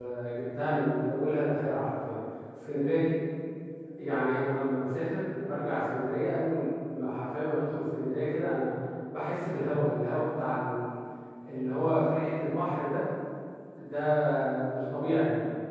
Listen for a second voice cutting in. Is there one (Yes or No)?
No